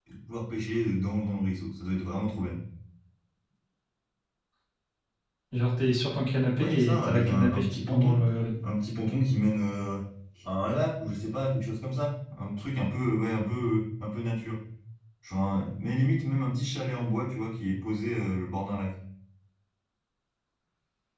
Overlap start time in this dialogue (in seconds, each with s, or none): 6.5 s